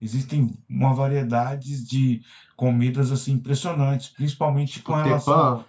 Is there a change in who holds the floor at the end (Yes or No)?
No